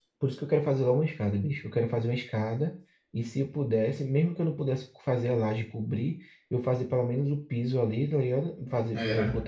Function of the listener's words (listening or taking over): listening